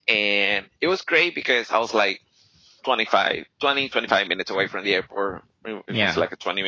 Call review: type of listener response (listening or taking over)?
listening